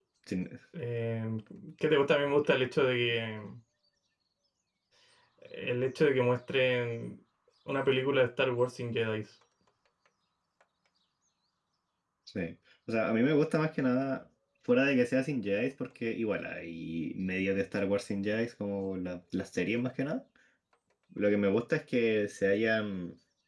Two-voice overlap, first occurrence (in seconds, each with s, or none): none